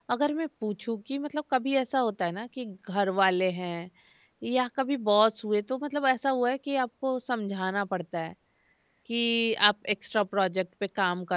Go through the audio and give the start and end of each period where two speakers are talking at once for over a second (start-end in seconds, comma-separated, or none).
none